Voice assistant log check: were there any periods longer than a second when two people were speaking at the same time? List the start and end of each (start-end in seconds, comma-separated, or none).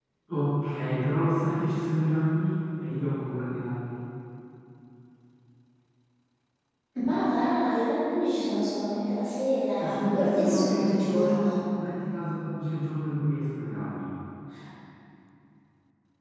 9.8-11.5